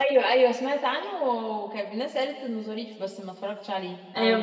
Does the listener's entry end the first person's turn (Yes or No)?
Yes